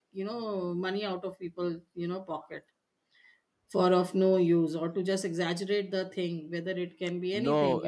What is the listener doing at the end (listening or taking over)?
taking over